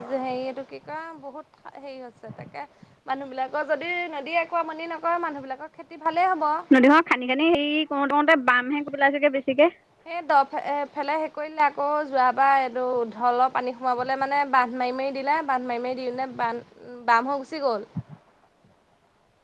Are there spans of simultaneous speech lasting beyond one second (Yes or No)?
No